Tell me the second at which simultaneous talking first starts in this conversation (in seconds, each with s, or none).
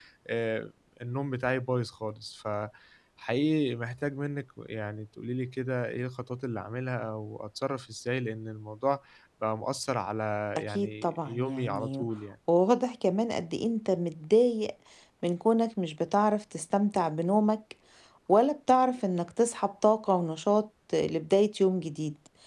10.6 s